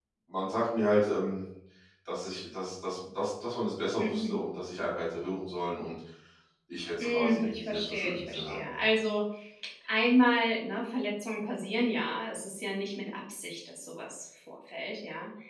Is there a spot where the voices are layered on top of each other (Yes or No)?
Yes